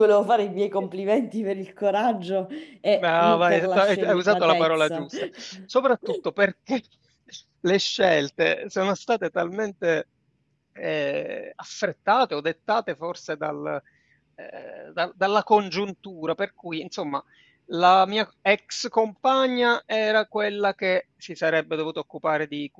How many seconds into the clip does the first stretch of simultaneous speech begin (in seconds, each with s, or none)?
3.0 s